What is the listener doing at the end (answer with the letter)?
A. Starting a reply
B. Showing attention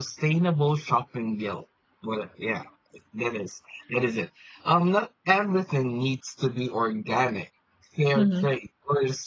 B